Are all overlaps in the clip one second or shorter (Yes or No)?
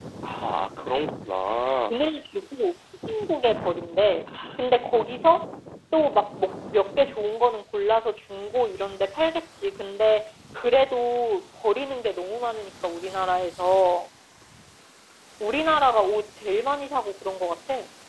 Yes